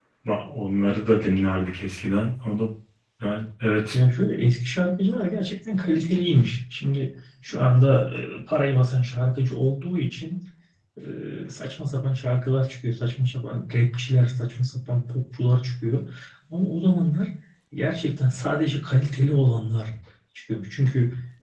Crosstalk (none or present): none